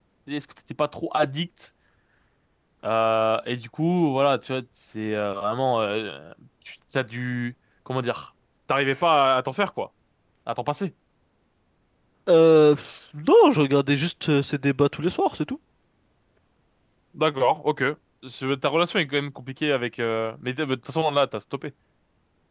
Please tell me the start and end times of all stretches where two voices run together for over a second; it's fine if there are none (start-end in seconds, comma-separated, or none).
none